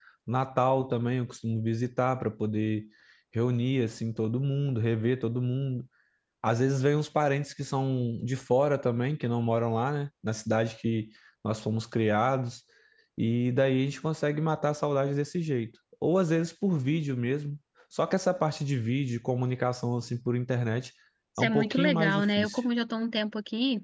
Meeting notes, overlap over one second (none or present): present